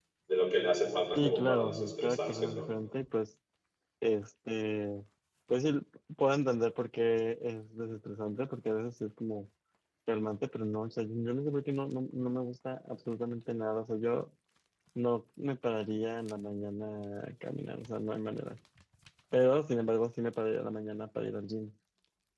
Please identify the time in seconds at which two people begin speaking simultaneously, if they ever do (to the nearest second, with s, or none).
1 s